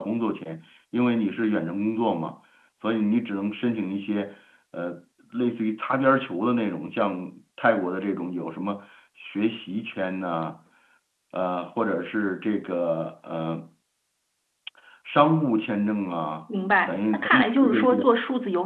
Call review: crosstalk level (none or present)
present